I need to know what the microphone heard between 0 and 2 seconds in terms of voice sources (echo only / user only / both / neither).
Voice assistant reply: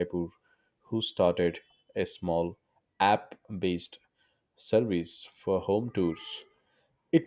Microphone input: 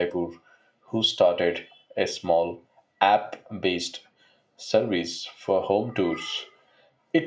echo only